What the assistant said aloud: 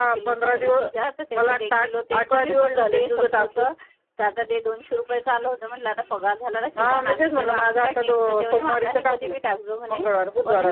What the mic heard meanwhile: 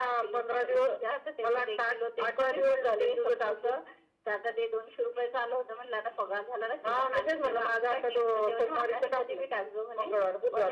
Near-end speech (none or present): none